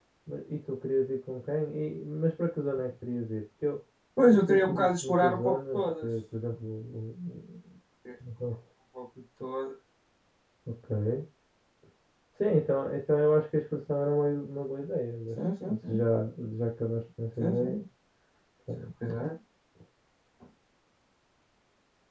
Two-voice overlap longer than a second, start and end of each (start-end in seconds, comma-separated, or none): 4.2-6.1